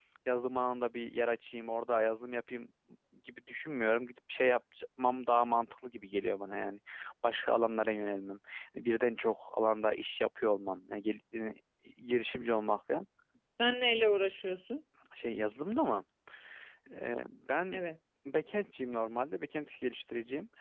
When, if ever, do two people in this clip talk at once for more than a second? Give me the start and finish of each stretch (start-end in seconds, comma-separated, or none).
none